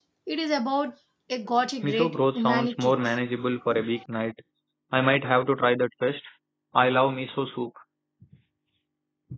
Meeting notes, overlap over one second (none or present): present